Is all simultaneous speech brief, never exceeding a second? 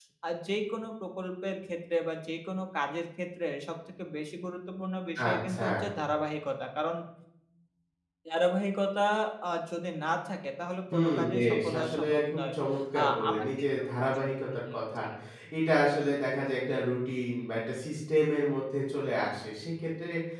No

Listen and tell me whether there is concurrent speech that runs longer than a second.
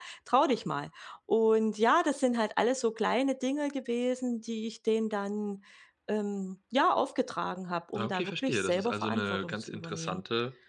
Yes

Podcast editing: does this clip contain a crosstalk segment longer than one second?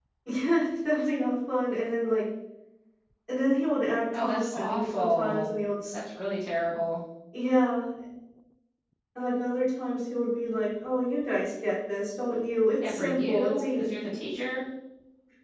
Yes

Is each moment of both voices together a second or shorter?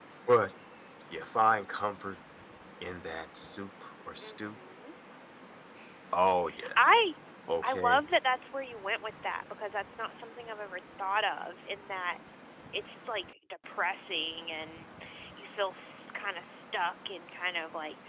Yes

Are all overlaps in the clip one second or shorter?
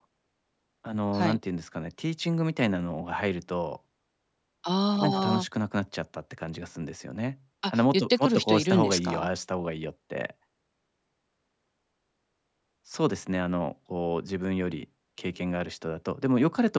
No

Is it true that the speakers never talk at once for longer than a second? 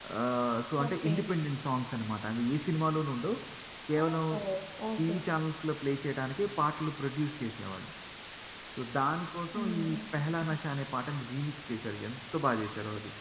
Yes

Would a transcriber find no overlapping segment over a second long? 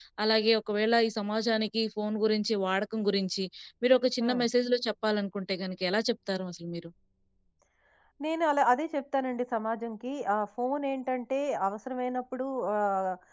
Yes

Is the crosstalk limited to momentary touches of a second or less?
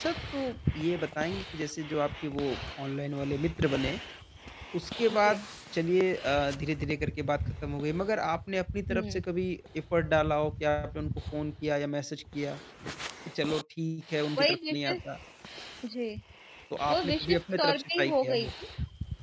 No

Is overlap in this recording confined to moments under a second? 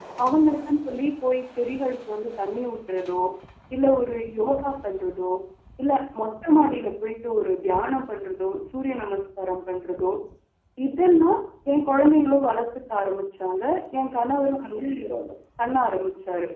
Yes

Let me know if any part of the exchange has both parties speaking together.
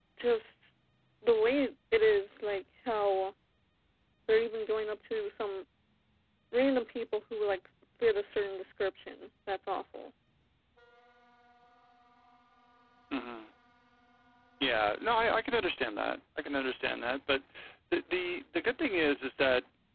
No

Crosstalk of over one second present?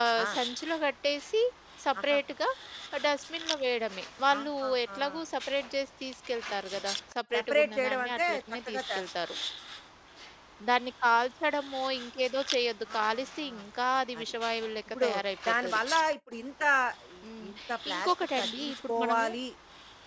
Yes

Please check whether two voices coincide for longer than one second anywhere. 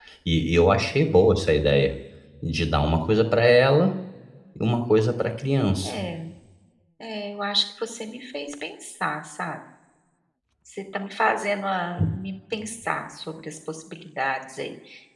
No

